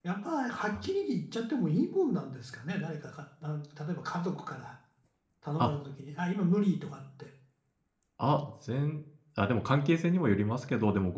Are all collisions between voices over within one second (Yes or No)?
Yes